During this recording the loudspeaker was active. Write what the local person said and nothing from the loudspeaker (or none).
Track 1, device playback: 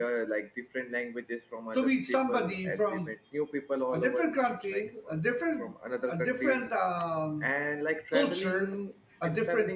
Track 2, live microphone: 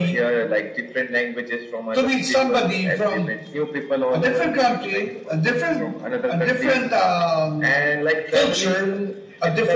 none